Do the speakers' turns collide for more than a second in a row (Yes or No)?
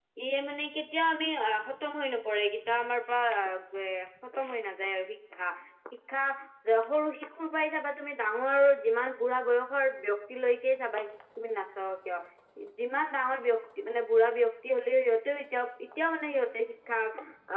No